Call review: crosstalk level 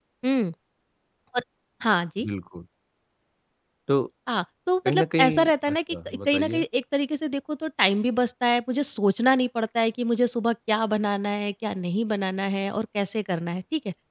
present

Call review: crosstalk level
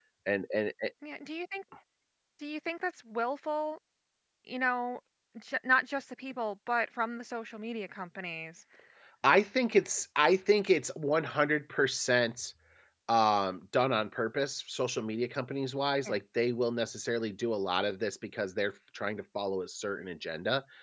none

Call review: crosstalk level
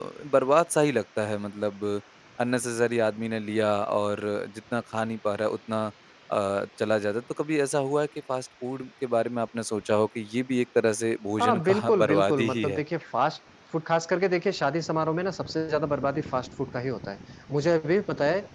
present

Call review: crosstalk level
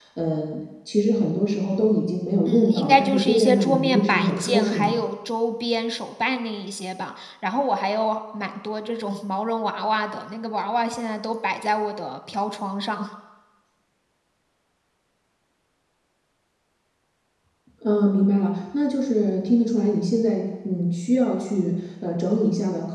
present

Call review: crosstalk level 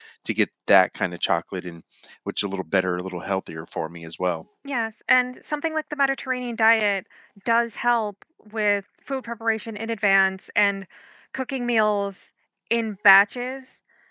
none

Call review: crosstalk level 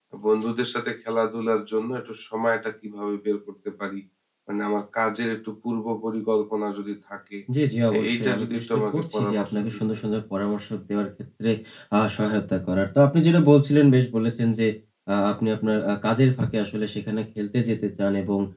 present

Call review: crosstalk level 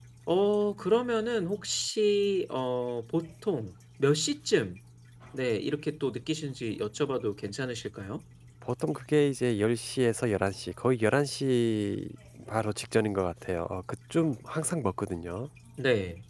none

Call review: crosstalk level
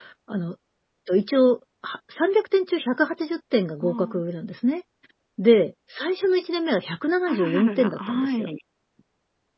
present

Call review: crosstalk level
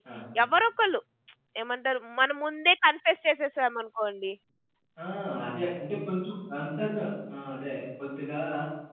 none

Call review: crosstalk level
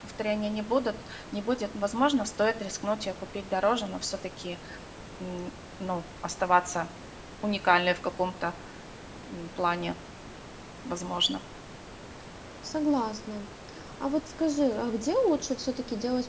none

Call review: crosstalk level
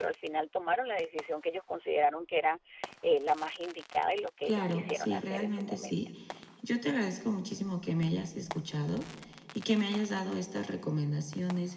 present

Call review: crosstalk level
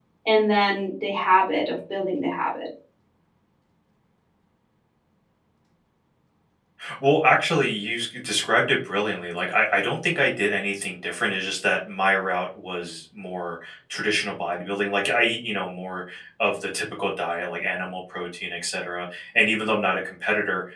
none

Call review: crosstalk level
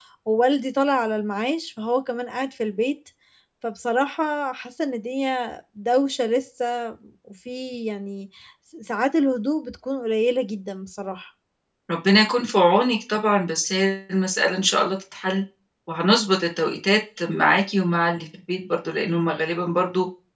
none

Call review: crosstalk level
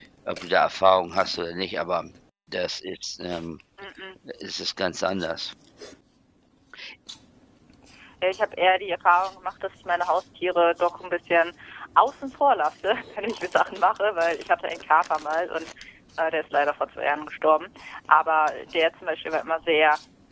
none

